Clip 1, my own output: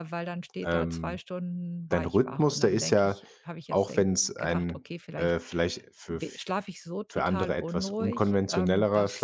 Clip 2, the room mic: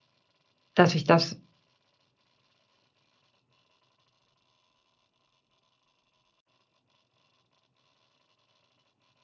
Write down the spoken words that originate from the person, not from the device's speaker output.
dass ich das

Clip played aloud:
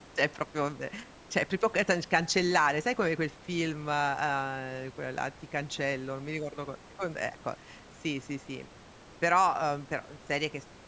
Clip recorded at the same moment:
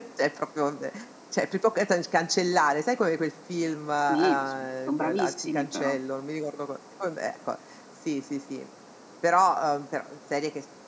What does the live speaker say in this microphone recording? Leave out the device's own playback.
Sì, beh, son son bravissimi però.

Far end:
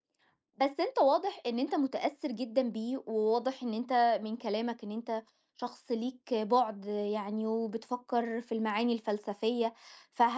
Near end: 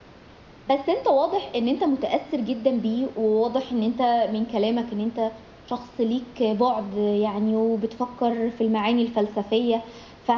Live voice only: none

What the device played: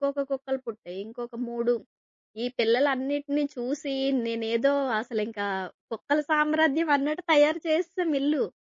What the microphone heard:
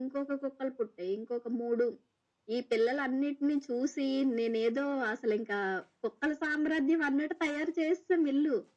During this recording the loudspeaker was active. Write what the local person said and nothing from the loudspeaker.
none

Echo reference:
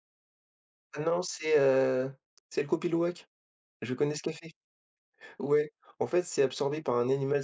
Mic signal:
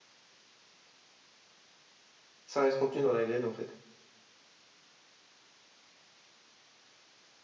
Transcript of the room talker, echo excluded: Ça reste contenu dans la graine, en fait.

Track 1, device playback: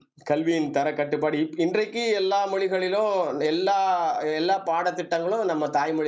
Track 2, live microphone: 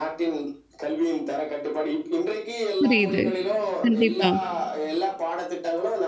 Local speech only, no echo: புரியுது. கண்டிப்பா,

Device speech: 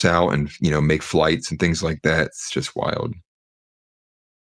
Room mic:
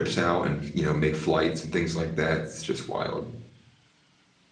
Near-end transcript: none

